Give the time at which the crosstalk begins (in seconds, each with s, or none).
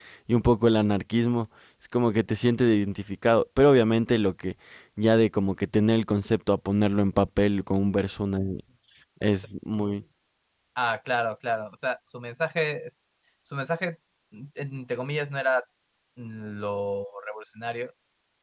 none